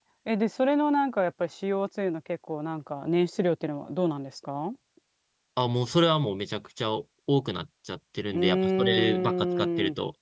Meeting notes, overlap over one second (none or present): present